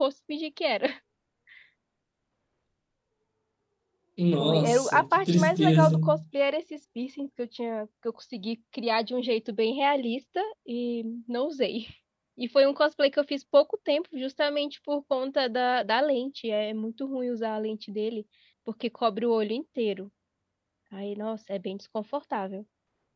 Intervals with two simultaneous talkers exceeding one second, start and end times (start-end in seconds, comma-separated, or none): 4.4-6.0